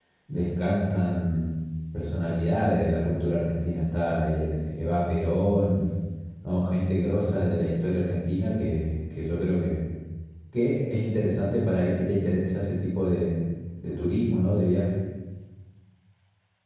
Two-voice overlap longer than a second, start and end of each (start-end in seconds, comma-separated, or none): none